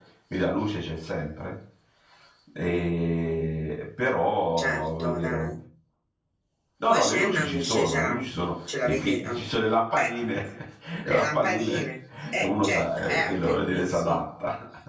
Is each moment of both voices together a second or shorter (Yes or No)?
No